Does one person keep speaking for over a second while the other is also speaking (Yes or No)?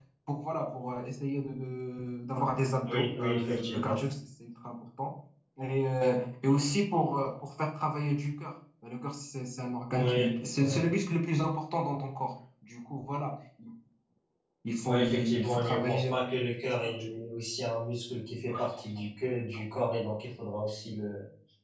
Yes